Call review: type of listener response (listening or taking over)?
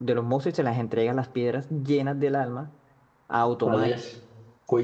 taking over